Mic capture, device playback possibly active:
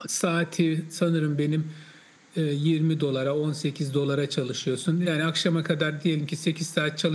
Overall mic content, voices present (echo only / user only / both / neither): echo only